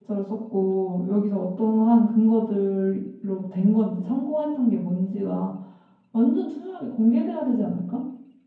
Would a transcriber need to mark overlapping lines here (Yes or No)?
No